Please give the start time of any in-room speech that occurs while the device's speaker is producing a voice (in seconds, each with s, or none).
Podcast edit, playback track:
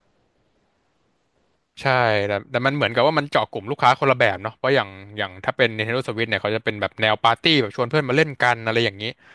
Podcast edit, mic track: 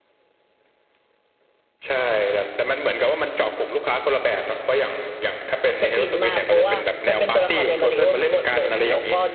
5.8 s